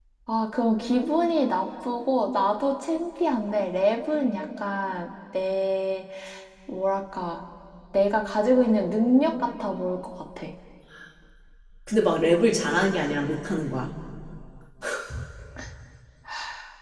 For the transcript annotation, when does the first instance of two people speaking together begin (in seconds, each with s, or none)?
none